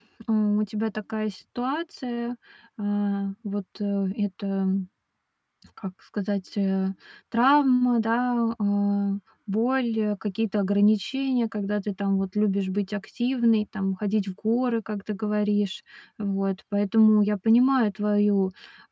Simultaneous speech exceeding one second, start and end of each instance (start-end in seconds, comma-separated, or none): none